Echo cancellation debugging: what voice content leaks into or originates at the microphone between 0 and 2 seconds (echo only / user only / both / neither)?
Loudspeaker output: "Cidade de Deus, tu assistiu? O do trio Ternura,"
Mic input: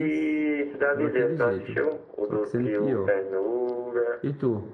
both